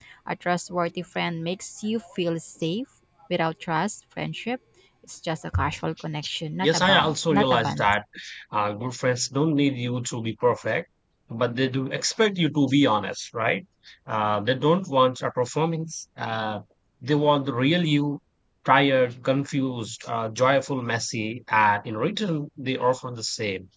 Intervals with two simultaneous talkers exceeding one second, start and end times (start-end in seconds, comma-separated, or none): 6.6-7.9